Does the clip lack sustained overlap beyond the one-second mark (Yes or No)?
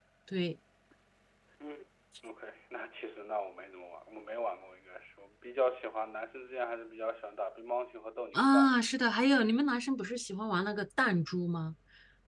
Yes